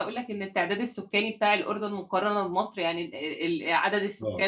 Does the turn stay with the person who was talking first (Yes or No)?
Yes